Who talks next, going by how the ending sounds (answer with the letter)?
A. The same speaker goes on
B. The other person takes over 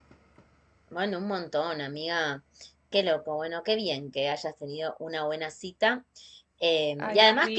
A